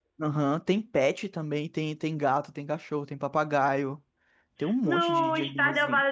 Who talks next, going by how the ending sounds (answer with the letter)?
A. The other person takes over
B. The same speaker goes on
A